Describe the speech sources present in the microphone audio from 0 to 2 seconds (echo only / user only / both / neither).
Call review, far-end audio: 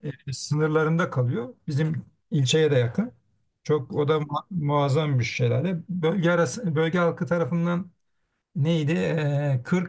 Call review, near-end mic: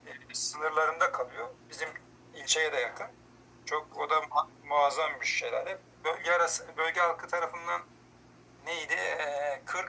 echo only